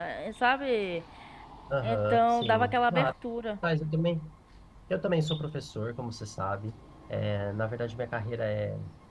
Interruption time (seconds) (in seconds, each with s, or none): 1.8 s